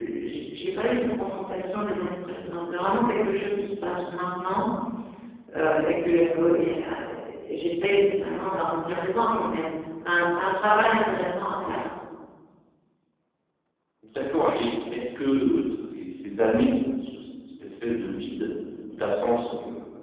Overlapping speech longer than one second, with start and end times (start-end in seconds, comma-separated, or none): none